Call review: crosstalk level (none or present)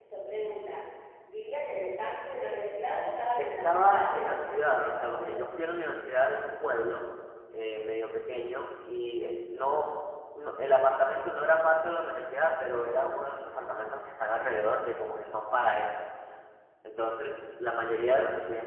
present